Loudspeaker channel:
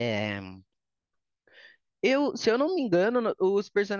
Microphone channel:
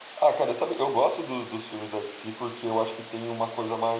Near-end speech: present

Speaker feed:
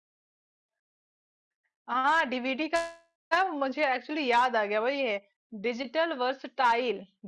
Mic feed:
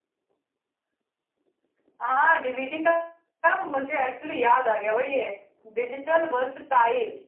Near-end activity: none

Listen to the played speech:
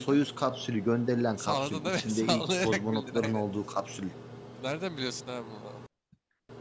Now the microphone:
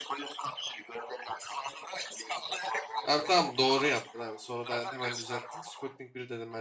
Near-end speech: present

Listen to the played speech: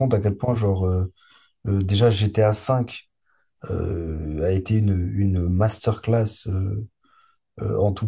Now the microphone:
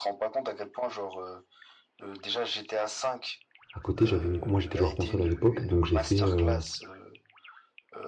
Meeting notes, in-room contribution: present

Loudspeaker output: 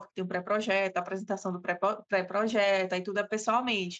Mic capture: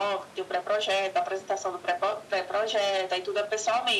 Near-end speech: none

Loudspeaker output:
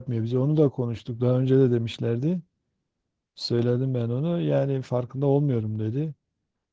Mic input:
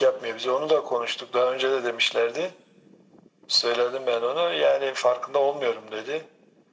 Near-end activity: none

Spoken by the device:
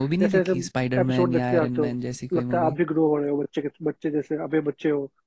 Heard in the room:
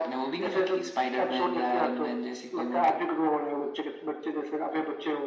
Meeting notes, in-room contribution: none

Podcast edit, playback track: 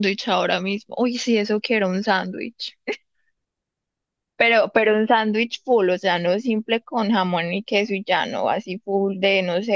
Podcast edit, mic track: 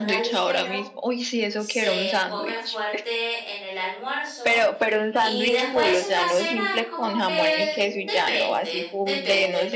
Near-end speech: present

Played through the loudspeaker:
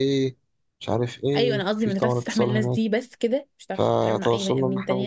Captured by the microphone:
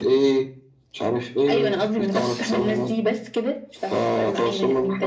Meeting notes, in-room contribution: none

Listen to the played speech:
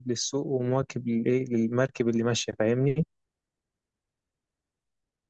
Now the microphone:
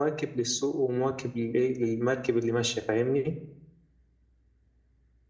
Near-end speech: none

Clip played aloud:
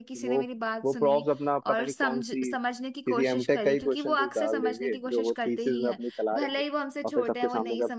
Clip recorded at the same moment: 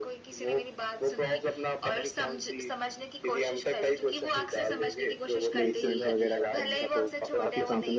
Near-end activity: present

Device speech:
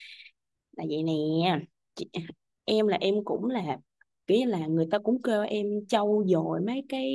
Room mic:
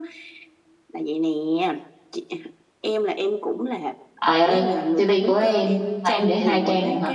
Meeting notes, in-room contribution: present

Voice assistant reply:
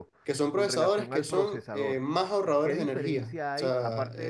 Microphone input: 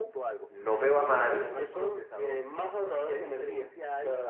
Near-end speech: present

